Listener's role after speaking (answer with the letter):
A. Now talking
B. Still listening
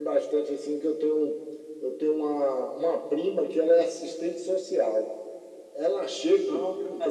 B